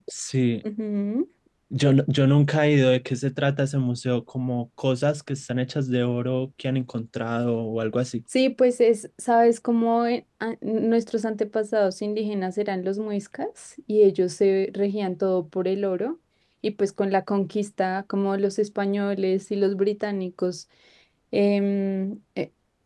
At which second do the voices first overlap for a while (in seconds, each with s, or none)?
none